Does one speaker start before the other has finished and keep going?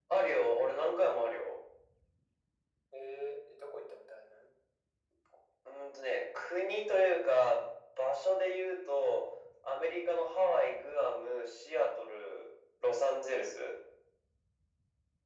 No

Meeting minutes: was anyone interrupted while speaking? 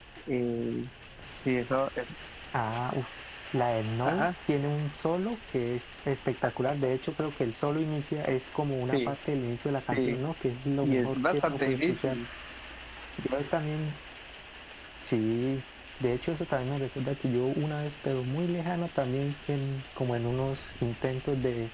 Yes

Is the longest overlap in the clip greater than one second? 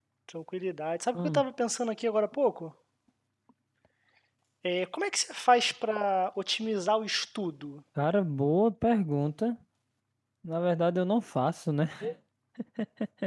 No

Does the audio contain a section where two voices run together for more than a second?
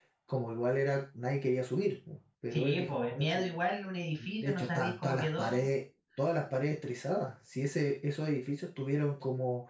Yes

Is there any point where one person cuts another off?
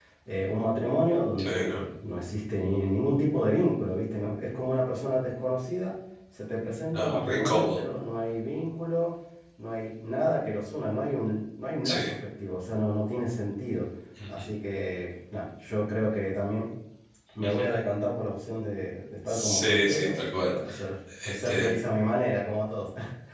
Yes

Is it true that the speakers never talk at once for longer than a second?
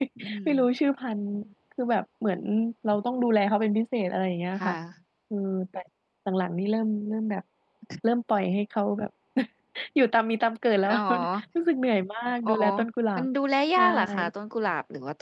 Yes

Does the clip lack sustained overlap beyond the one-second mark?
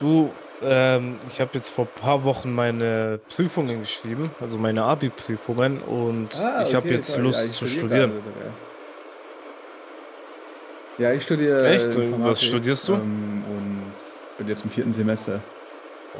No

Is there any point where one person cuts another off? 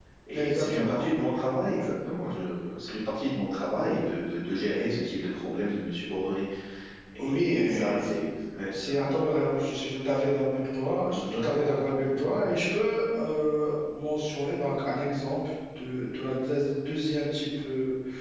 Yes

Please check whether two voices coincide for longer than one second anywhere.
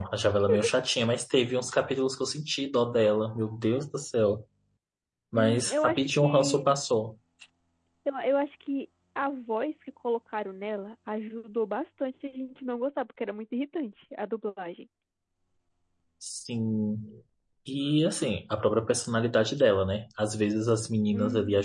Yes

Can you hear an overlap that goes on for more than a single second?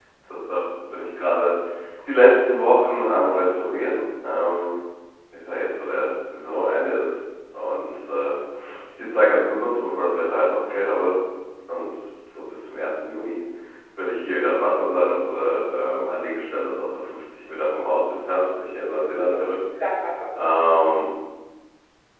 No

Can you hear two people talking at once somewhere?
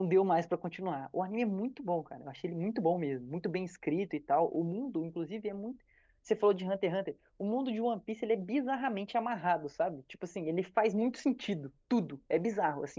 No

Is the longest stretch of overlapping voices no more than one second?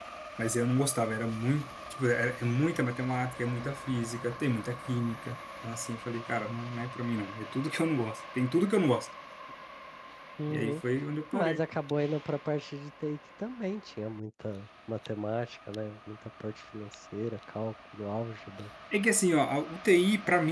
Yes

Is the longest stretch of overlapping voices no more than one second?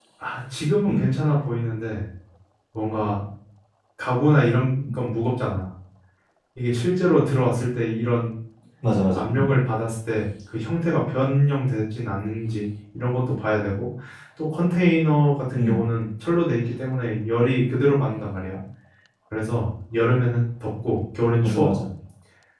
Yes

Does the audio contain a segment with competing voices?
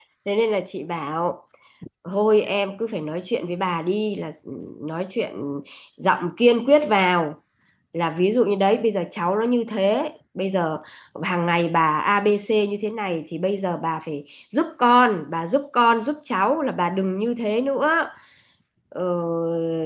No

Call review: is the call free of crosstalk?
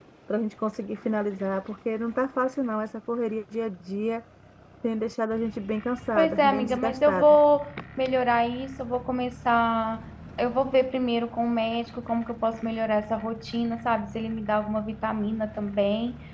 No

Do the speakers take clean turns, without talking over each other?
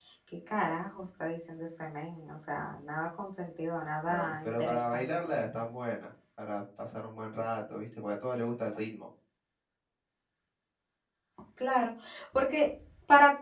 No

